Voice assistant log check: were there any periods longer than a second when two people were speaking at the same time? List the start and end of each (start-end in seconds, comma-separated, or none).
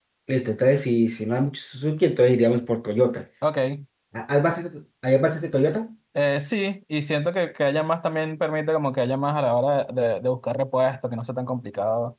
none